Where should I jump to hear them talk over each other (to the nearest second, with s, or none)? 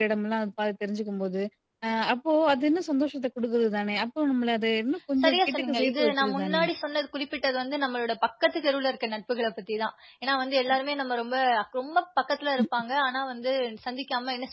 5 s